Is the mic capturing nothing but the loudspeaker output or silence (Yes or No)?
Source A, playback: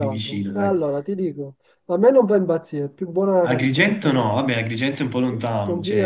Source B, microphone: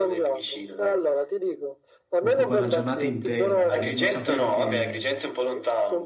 No